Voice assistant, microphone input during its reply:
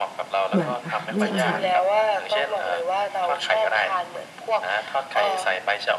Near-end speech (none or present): present